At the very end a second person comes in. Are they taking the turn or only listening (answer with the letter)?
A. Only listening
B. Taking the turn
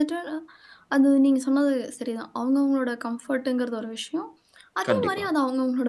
A